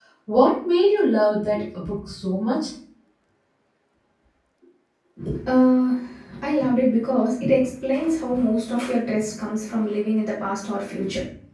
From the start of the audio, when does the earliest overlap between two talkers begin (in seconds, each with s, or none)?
none